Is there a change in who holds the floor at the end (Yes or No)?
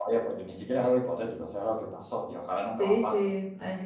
Yes